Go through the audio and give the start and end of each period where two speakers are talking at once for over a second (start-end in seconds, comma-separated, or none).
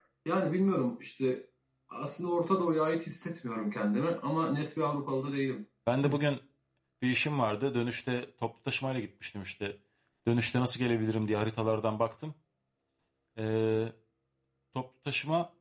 none